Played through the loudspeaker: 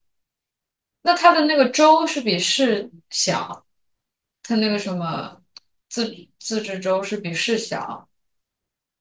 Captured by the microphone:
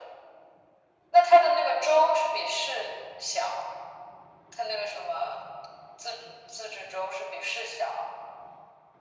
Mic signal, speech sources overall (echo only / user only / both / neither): echo only